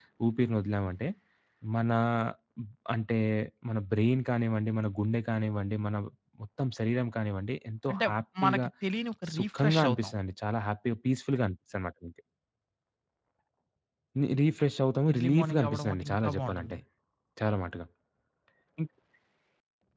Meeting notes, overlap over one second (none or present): present